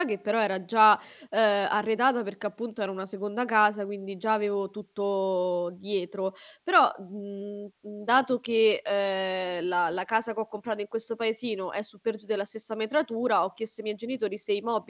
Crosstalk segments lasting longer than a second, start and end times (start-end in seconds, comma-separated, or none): none